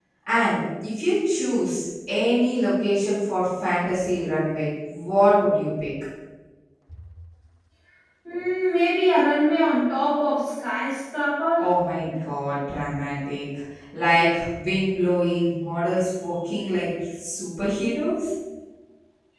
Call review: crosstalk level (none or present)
none